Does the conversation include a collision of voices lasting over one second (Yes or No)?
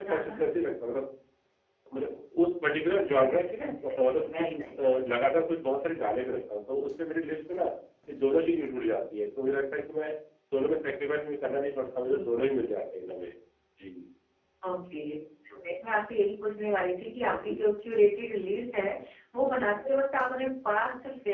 Yes